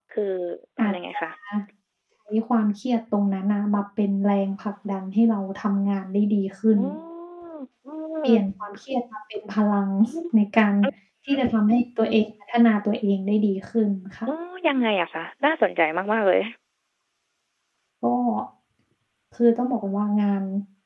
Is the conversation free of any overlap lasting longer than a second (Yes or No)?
Yes